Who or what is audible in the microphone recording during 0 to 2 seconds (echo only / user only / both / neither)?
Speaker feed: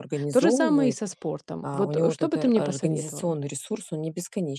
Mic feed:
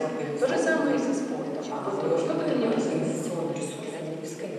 both